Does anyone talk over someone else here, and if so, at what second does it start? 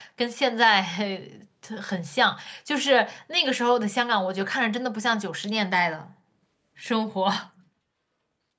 none

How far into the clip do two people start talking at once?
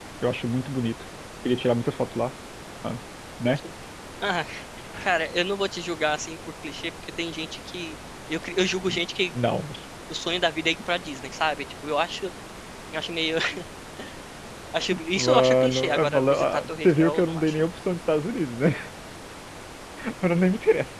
15.2 s

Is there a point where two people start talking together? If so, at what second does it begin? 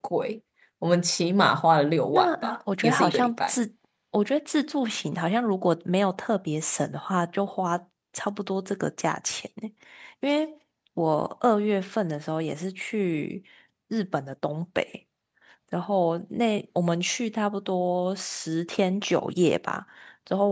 2.1 s

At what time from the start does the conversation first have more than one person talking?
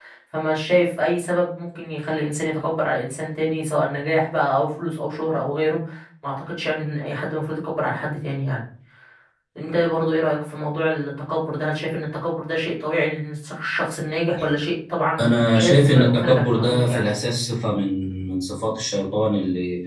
15.2 s

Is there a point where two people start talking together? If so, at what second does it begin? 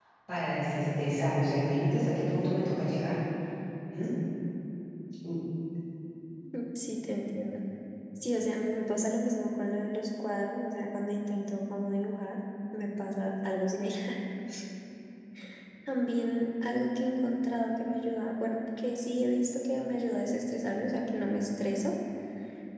none

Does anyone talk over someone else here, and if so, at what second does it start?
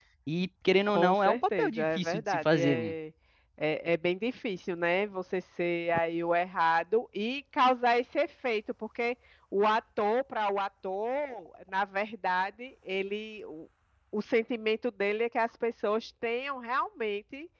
0.9 s

